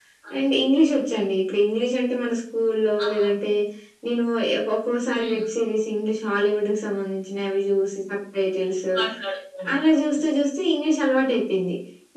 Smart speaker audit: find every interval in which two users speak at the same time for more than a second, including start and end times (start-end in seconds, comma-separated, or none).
none